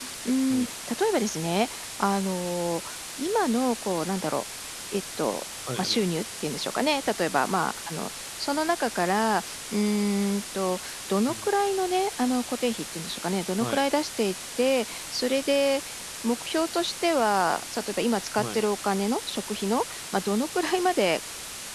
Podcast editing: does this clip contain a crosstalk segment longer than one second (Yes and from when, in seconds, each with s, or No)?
No